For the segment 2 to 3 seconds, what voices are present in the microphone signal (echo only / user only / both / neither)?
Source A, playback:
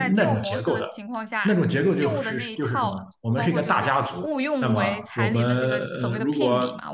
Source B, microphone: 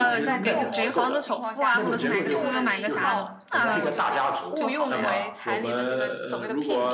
both